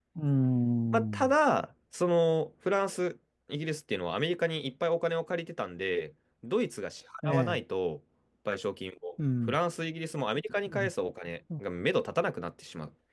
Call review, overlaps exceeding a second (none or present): none